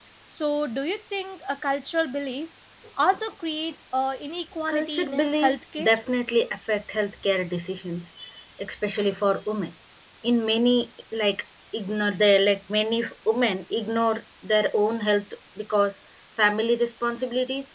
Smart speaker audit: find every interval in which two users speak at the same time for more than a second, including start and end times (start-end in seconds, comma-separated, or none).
4.7-5.9